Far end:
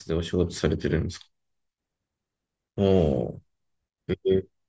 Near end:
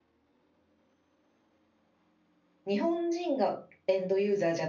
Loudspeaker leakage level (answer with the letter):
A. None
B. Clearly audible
A